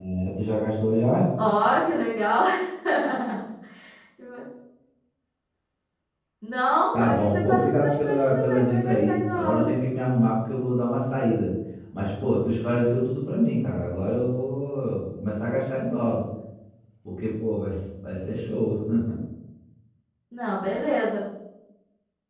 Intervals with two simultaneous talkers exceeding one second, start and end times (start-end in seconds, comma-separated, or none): 7.0-9.7